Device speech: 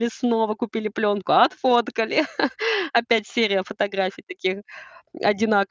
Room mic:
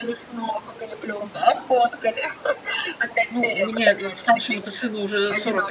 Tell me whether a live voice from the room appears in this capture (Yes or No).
Yes